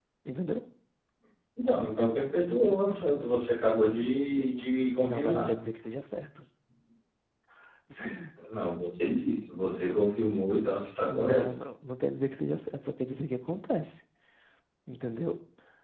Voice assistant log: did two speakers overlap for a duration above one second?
No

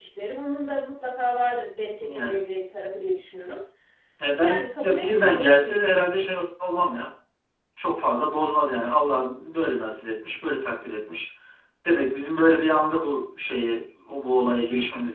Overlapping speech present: Yes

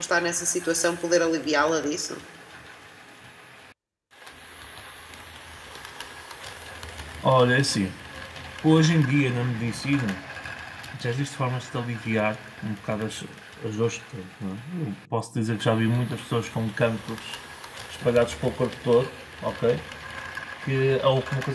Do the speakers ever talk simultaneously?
No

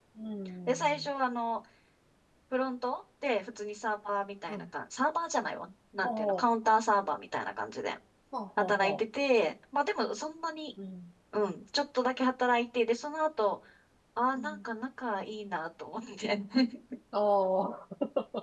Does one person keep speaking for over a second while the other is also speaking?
No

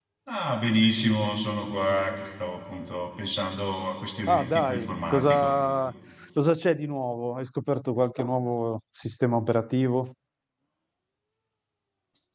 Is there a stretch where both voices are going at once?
Yes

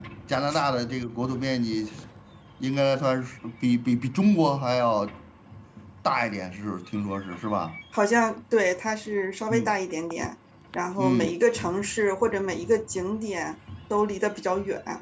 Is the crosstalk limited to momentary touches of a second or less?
Yes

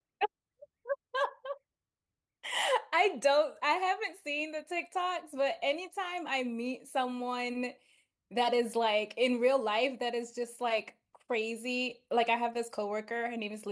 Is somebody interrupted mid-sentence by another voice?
No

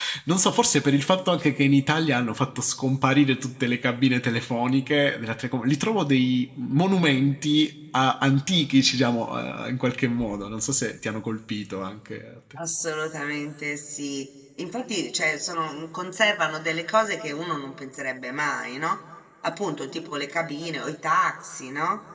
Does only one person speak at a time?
Yes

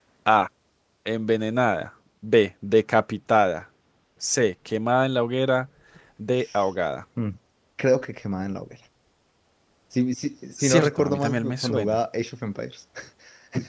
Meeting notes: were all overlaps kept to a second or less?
No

